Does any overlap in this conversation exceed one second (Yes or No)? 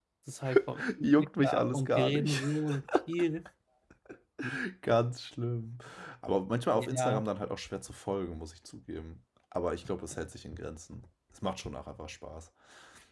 Yes